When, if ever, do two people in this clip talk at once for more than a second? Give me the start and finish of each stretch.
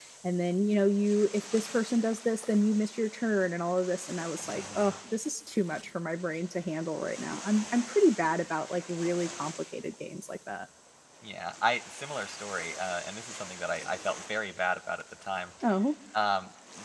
none

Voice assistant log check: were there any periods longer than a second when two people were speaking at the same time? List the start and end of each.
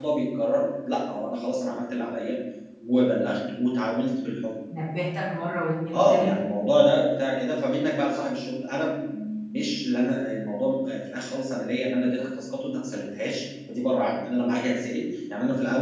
none

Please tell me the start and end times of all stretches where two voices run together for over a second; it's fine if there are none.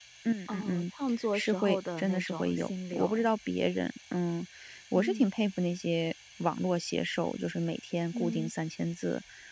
1.3-3.3

